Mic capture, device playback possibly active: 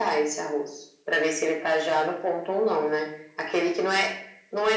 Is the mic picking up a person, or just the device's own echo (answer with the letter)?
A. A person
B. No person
B